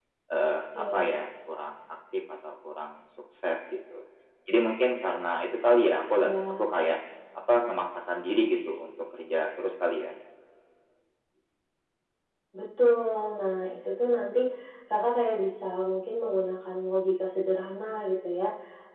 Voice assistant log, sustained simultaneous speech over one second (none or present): none